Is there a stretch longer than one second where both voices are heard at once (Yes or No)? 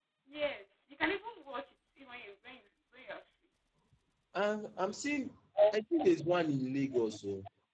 No